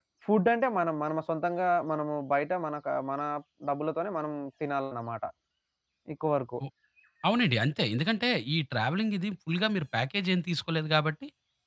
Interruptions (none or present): none